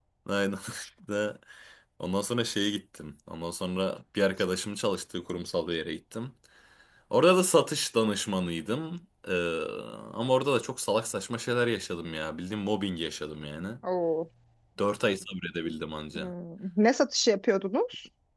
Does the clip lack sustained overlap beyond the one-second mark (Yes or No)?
Yes